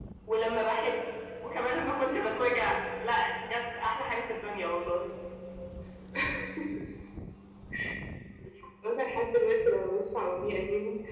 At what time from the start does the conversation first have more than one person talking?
none

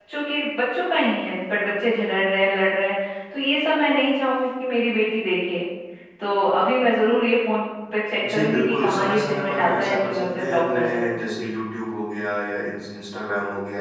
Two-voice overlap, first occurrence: 8.2 s

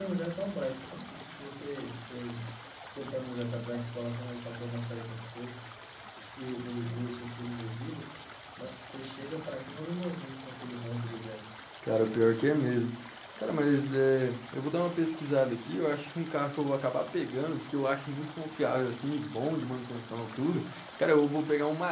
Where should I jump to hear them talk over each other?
none

